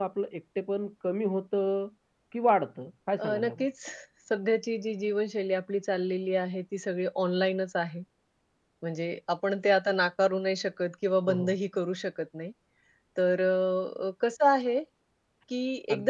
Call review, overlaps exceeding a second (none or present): none